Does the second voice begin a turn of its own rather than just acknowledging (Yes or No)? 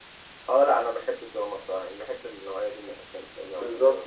Yes